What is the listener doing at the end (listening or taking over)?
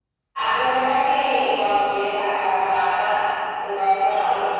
listening